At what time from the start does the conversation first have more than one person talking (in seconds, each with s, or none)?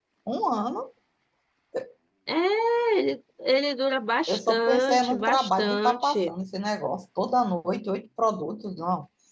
4.3 s